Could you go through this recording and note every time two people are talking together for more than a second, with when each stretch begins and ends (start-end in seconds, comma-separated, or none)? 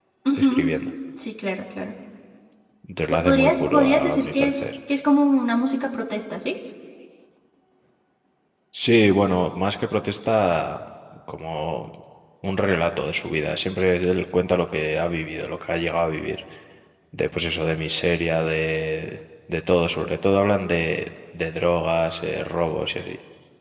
3.1-4.7